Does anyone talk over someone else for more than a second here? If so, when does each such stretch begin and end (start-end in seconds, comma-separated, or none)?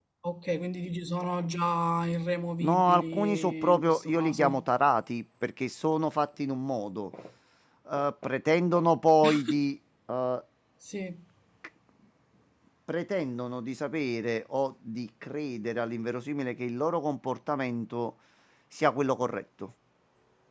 2.6-4.7